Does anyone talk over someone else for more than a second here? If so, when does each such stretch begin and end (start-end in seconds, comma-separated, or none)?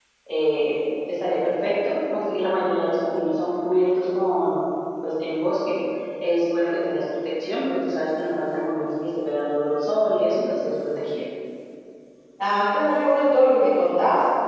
none